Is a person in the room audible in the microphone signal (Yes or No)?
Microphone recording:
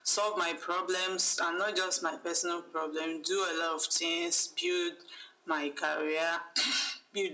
No